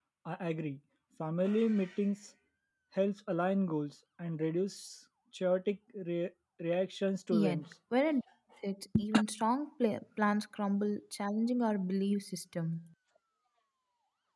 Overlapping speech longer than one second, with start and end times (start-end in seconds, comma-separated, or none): none